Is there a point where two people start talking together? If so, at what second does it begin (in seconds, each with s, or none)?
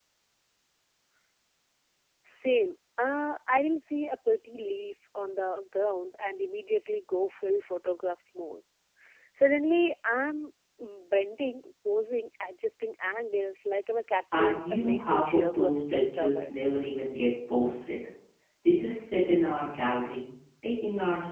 14.3 s